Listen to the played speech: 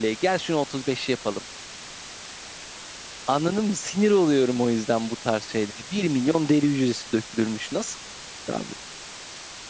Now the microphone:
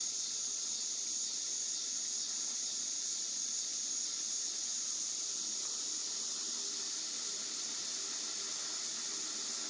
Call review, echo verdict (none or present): none